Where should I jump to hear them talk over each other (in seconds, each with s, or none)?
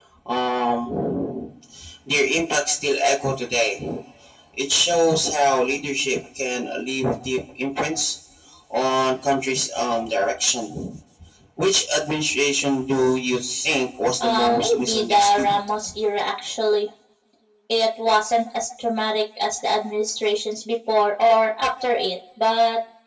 14.2 s